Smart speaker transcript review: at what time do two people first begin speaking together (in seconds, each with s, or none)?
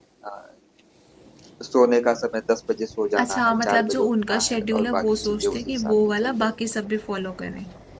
3.2 s